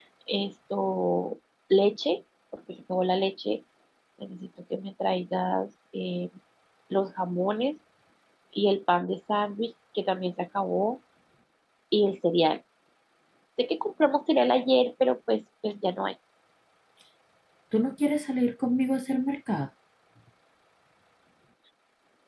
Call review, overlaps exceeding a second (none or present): none